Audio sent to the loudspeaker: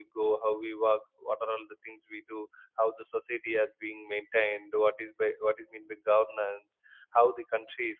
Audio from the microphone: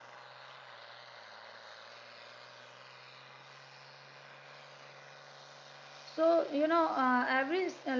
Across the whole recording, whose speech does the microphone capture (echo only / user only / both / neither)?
user only